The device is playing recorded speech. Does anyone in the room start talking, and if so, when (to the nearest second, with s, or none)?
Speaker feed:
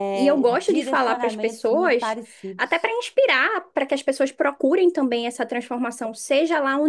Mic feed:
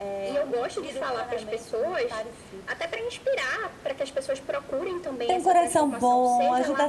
5 s